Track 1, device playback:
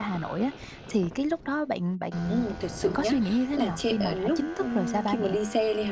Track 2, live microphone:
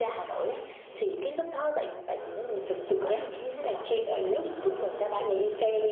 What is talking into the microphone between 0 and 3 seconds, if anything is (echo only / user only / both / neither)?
echo only